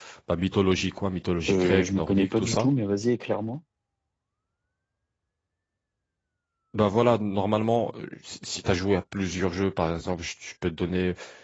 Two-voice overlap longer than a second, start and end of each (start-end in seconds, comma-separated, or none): 1.5-2.7